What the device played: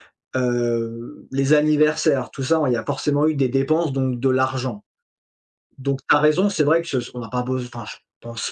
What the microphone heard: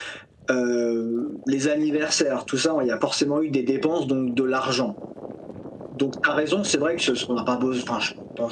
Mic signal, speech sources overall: echo only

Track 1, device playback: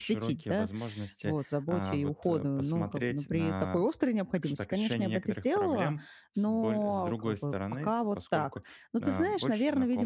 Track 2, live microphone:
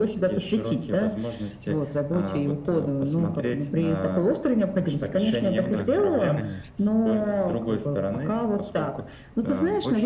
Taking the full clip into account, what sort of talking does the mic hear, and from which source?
both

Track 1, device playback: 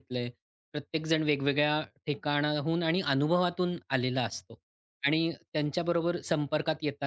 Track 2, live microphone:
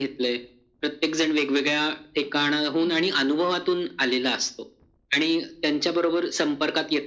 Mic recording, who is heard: both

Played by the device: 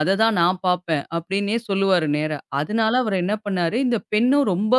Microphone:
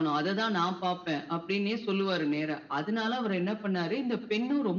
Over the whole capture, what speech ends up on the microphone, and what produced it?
echo only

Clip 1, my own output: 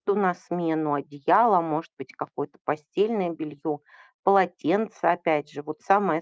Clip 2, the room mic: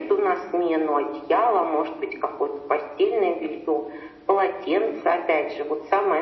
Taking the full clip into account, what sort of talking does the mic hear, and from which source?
echo only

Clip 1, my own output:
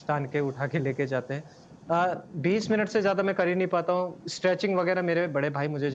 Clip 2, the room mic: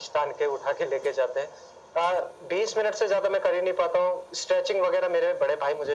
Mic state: echo only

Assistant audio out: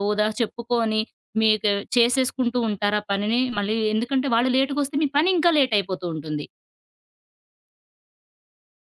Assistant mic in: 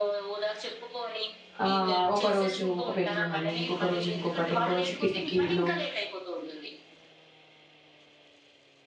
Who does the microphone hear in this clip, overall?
both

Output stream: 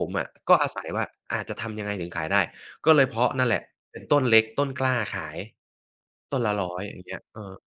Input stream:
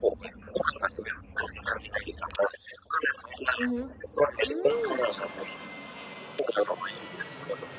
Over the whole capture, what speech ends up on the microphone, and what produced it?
both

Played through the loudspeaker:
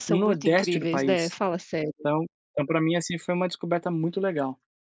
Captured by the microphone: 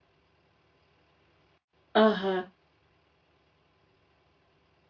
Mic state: user only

